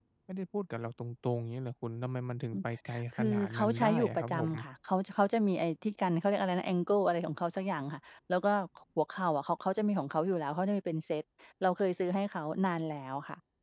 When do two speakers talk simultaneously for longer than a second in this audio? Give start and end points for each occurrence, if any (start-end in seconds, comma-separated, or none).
3.1-4.5